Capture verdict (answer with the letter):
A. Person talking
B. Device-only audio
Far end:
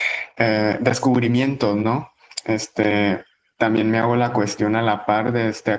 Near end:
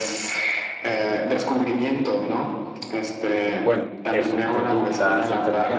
A